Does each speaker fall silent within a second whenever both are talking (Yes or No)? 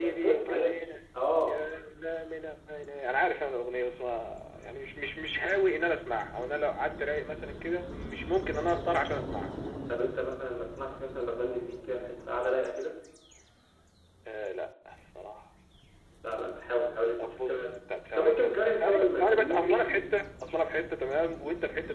No